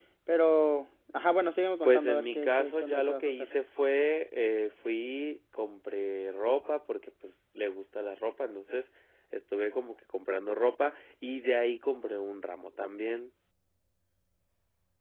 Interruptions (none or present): present